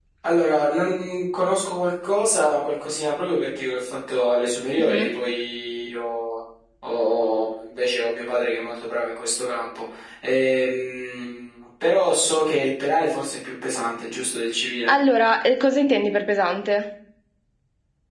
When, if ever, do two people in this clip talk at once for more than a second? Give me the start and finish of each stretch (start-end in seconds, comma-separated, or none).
none